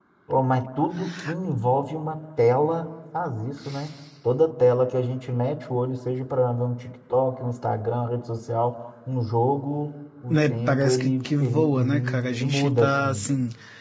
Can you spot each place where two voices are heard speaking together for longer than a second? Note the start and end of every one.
10.3-13.3

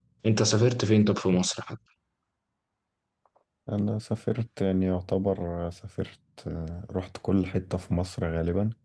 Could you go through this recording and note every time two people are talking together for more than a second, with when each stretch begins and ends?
none

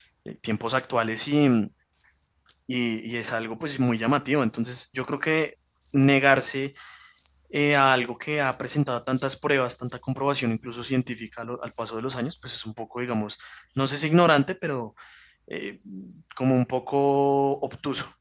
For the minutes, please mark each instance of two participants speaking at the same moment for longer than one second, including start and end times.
none

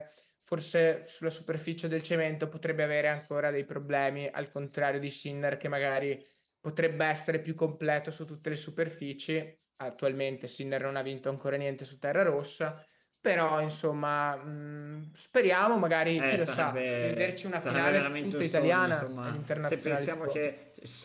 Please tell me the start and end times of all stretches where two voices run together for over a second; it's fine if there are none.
16.2-20.4

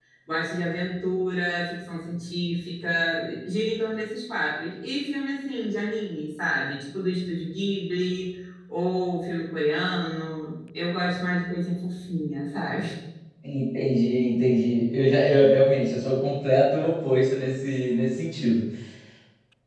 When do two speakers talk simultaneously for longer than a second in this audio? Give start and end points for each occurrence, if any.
none

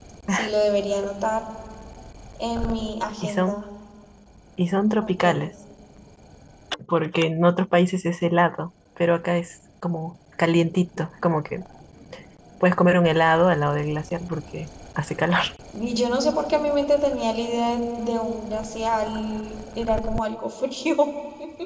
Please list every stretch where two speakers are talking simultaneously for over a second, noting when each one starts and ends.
none

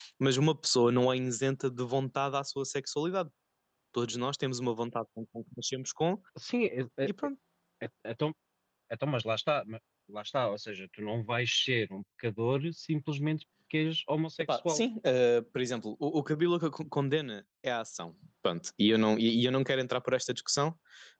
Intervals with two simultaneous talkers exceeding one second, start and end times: none

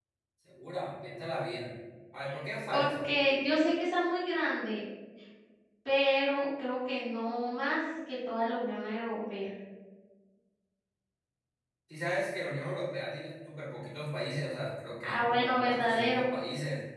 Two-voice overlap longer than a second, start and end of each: 15.0-16.2

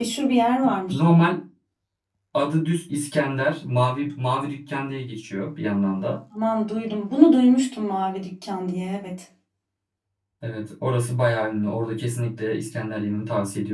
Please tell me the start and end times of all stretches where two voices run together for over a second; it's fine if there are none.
none

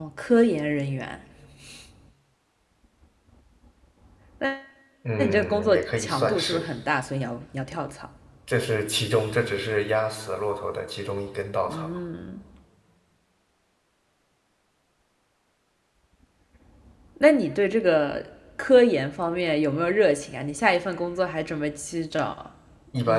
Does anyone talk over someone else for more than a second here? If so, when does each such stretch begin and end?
5.2-6.7

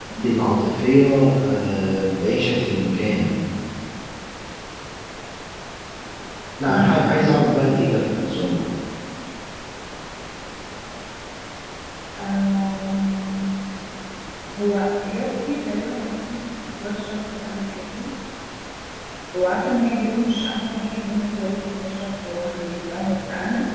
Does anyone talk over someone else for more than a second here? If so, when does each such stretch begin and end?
6.7-8.1

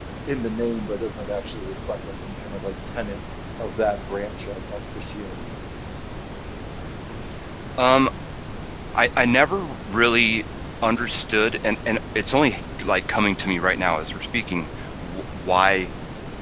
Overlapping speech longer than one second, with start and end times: none

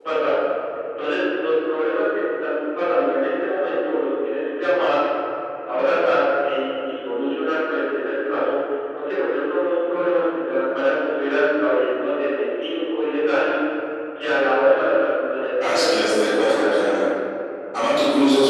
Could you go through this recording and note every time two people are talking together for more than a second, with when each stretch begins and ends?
15.6-17.1

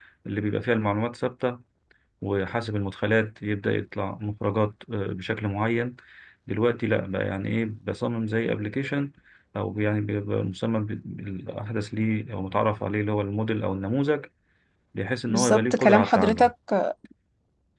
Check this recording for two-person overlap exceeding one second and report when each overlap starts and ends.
15.3-16.5

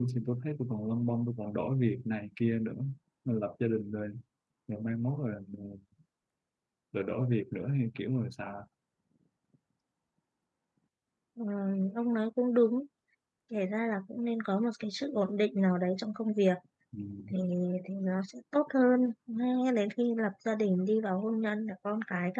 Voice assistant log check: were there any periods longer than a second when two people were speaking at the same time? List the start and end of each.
none

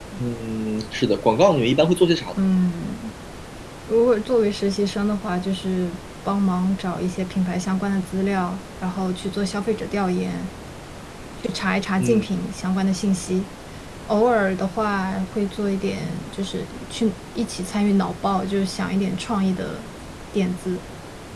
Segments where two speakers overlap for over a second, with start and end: none

